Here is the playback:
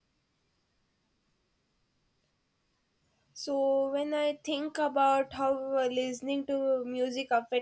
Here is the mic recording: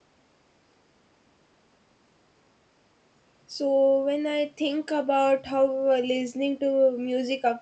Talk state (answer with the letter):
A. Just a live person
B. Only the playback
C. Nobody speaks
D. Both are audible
B